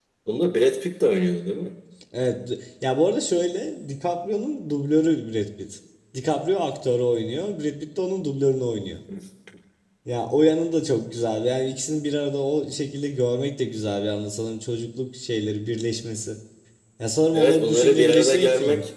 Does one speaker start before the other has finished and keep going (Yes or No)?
Yes